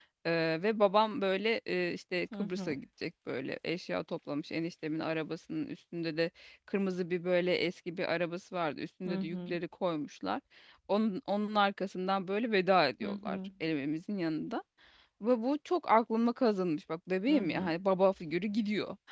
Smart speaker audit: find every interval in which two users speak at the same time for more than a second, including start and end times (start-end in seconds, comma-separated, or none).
none